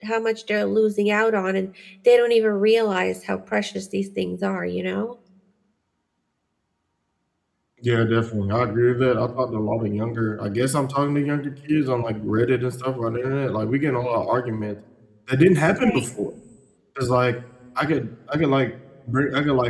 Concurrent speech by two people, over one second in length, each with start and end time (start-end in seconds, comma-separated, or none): none